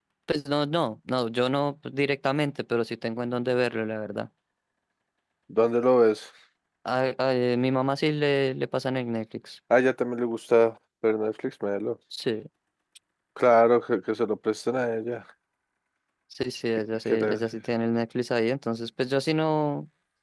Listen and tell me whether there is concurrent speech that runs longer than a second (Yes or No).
No